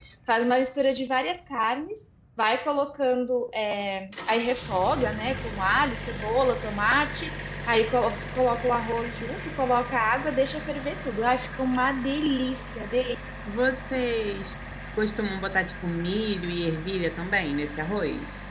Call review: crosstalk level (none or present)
none